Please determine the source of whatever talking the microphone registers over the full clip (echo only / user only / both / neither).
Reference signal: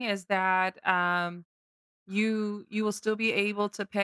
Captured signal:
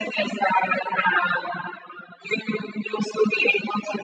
echo only